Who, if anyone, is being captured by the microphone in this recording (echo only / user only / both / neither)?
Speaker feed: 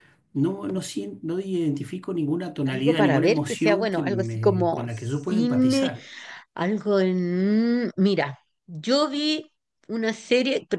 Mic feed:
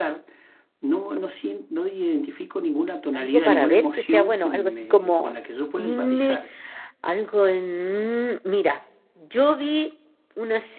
echo only